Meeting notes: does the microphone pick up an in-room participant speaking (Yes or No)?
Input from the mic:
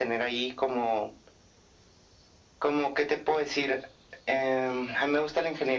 No